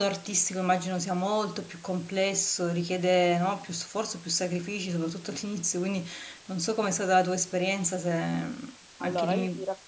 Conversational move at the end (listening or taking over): taking over